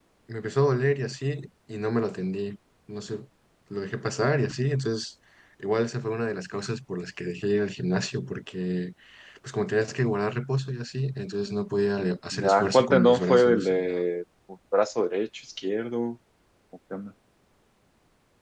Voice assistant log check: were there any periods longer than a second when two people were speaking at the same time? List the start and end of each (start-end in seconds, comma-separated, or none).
12.3-14.0